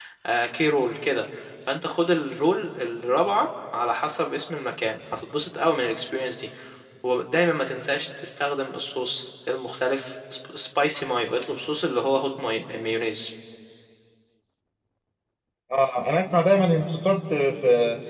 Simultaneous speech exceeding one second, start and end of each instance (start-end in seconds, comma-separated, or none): none